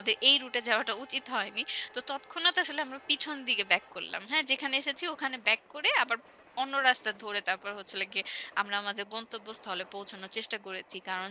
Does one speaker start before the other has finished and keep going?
No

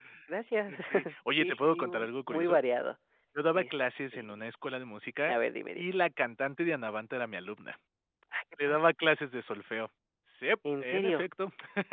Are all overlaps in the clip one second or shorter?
No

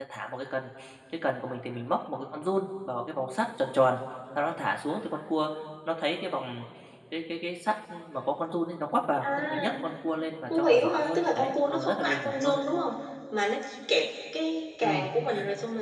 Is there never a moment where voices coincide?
No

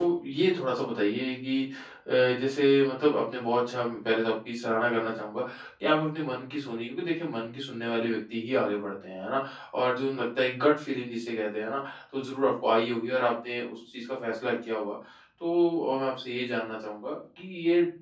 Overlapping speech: No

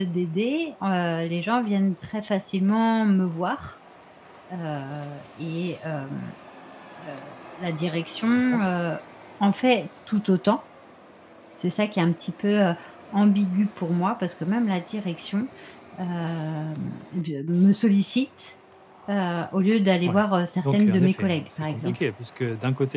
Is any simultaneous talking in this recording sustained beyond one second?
Yes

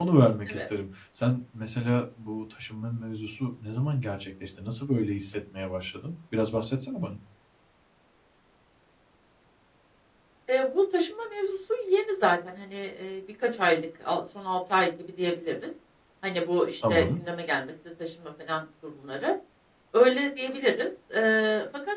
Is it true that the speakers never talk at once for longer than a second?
Yes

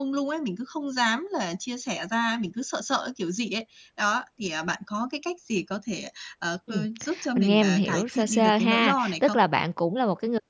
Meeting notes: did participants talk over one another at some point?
Yes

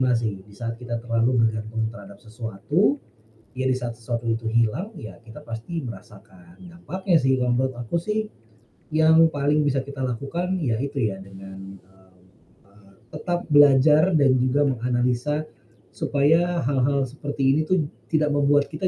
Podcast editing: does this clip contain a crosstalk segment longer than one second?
No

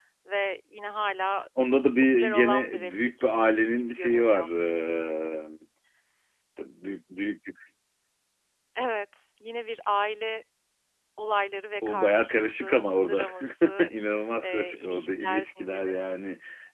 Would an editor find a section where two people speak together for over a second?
Yes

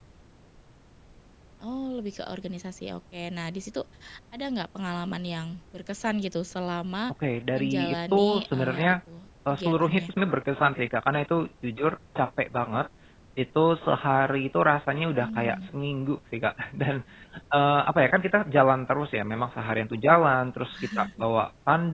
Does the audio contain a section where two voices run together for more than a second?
Yes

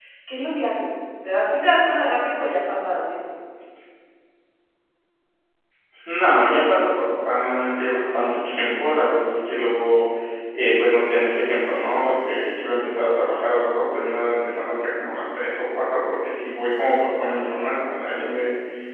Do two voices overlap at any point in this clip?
No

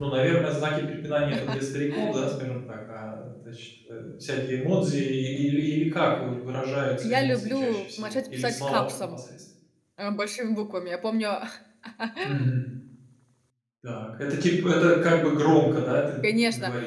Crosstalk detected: Yes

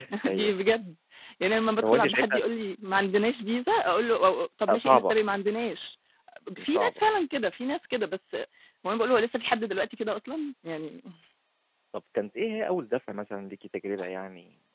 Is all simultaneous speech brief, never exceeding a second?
Yes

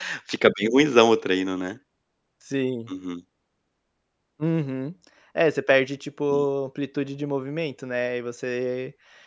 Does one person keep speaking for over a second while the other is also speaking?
No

